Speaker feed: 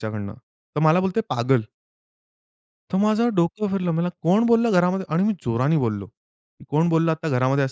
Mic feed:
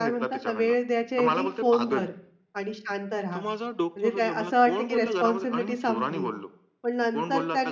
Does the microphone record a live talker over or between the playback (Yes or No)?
Yes